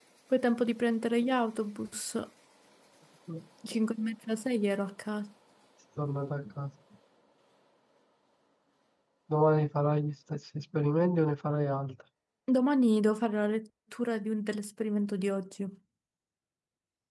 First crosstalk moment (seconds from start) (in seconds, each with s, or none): none